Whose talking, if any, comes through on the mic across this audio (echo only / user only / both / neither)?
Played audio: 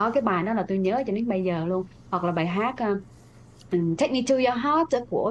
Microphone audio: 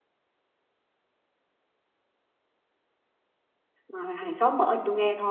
user only